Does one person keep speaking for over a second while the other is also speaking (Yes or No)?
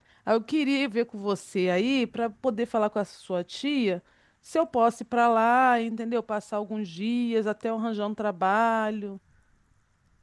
No